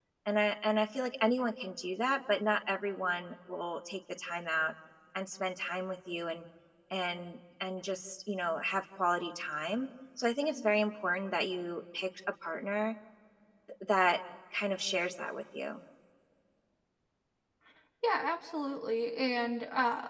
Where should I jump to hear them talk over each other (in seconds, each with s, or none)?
none